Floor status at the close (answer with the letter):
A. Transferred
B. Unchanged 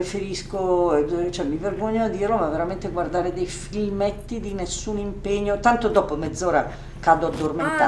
A